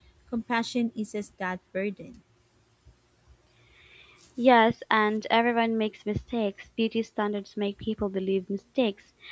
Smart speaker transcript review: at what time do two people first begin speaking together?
none

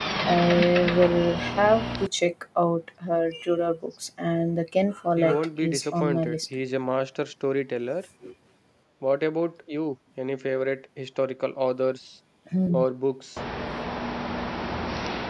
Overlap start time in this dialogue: 5.2 s

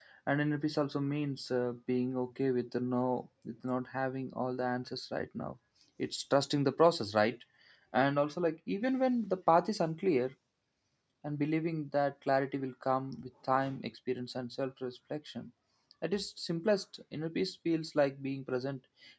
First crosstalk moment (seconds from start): none

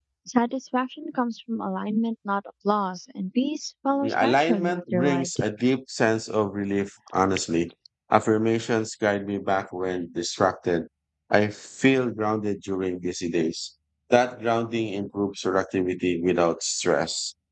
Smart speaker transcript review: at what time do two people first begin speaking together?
4.0 s

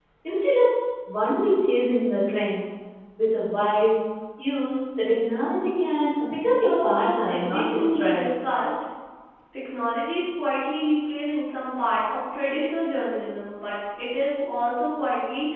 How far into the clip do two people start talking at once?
6.5 s

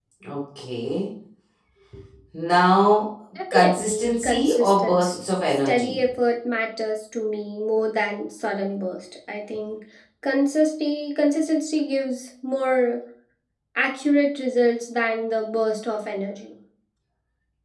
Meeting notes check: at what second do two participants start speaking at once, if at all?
3.4 s

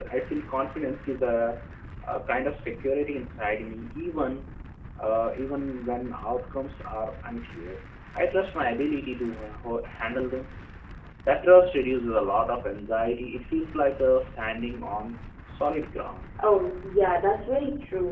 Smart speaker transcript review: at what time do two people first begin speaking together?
none

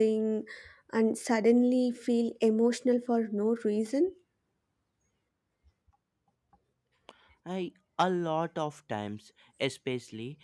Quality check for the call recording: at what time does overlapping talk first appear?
none

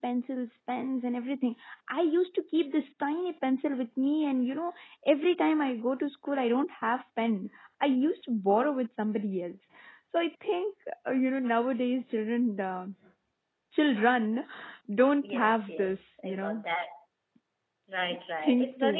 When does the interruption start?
15.2 s

